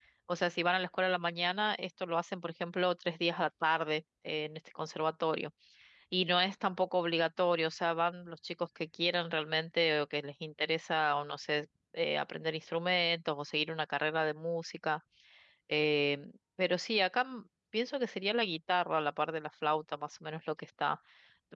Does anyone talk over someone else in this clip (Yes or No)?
No